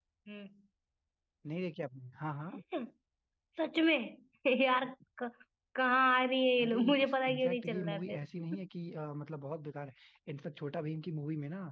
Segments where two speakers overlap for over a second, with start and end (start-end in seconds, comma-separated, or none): 6.6-8.2